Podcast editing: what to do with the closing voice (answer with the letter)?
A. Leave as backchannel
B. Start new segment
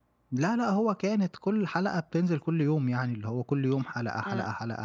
B